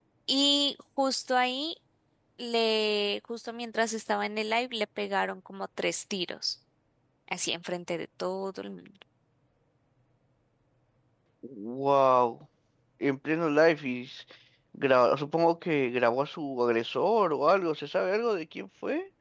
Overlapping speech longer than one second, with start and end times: none

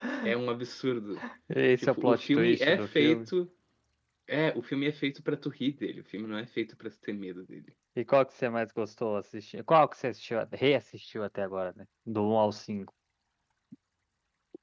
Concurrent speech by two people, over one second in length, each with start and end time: 1.8-3.3

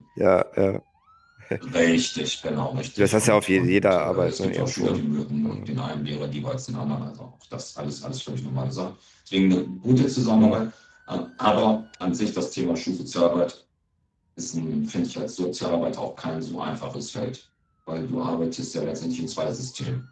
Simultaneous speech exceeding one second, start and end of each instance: 3.0-5.0

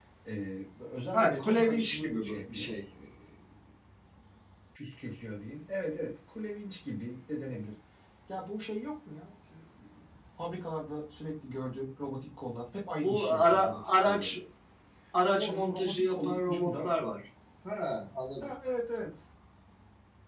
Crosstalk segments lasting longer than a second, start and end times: 1.1-2.7, 13.0-14.4, 15.4-16.9

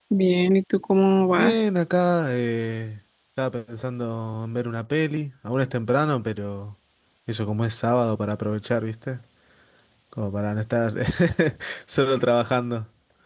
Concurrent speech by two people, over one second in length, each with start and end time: none

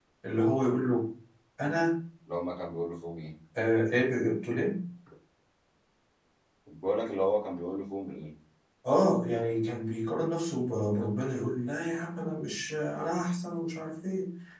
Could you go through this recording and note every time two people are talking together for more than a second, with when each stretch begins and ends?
none

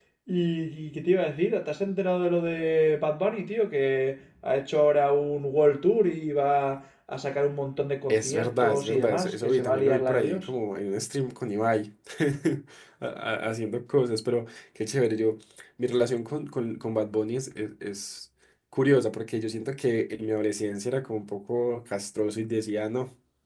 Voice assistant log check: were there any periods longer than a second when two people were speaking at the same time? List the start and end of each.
8.1-10.5

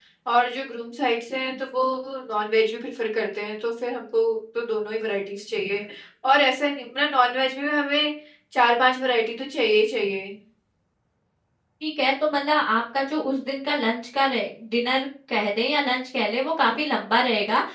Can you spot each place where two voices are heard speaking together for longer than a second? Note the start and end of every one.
none

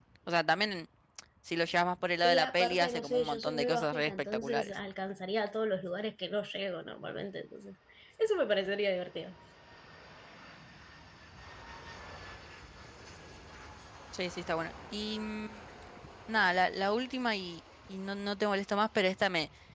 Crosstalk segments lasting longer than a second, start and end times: 2.2-4.7

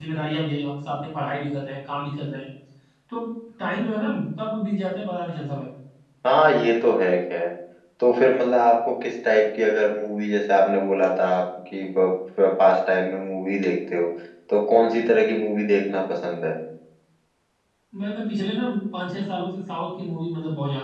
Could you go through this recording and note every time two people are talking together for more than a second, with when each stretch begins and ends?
none

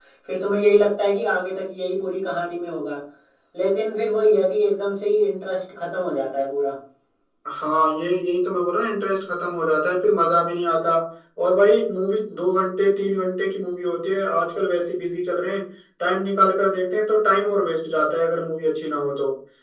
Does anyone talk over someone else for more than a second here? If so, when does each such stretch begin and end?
none

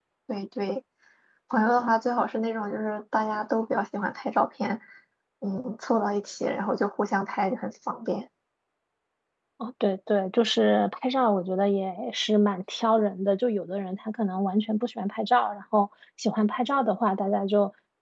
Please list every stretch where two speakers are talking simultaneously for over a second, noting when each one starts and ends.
none

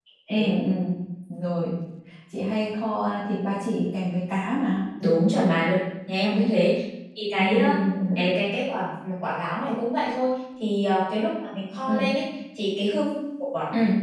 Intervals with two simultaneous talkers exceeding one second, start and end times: none

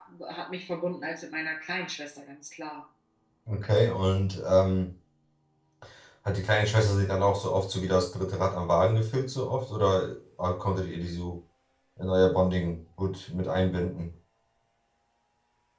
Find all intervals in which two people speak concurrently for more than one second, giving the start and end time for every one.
none

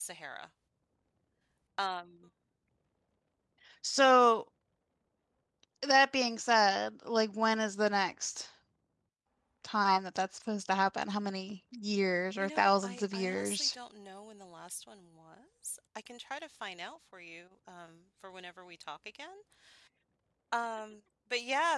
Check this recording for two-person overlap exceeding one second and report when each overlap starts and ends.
12.4-13.7

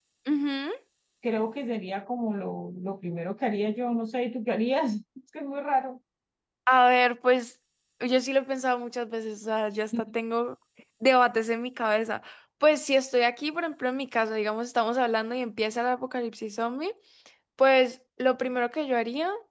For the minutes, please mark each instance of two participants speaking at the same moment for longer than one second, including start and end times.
none

